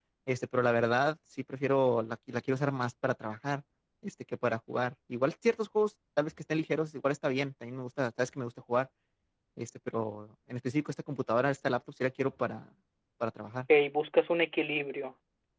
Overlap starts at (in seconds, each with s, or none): none